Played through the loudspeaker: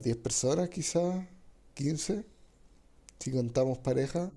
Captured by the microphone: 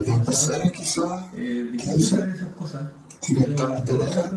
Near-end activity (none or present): present